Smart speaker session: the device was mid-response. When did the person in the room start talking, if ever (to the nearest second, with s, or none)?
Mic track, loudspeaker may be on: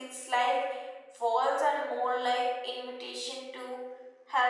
none